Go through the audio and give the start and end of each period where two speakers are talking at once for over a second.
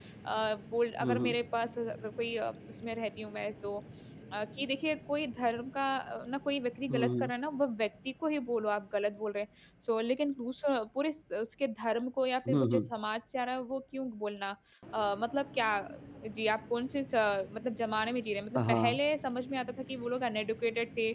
none

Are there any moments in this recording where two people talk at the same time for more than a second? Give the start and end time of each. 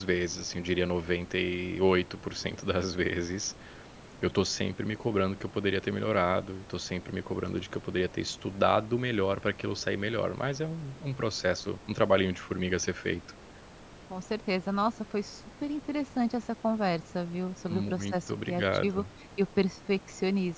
17.7-19.0

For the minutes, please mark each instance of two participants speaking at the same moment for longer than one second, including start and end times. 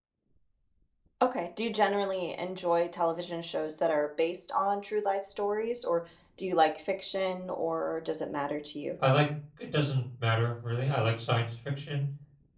none

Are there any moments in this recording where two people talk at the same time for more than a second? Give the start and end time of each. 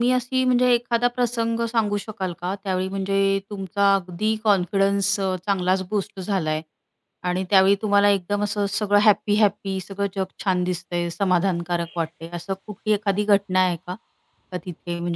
none

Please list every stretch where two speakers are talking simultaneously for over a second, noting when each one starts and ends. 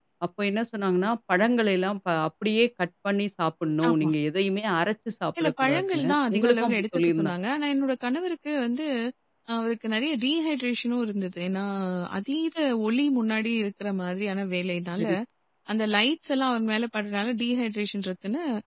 5.4-7.3

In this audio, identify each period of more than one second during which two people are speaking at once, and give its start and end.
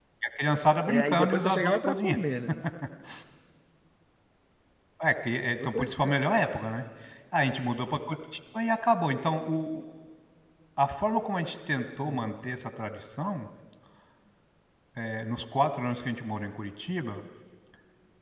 0.9-2.2

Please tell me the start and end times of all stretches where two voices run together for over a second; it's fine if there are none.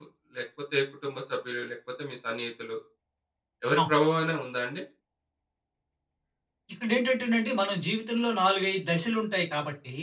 none

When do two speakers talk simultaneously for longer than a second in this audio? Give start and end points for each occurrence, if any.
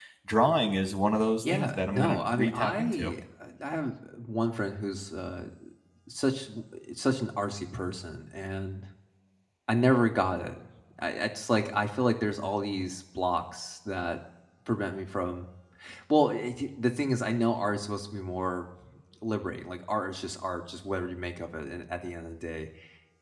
1.4-3.1

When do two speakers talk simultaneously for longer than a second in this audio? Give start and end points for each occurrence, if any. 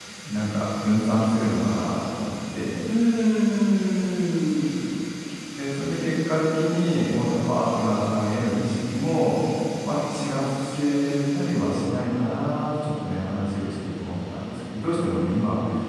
none

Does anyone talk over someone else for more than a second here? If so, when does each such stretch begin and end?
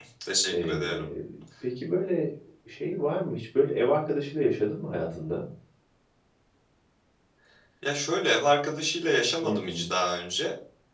none

